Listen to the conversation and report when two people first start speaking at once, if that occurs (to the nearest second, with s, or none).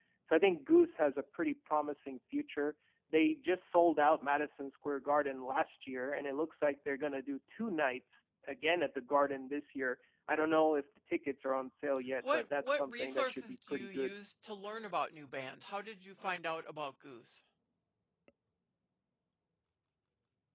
12 s